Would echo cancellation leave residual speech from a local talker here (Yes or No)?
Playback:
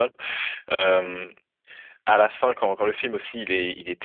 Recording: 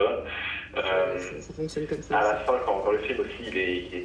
Yes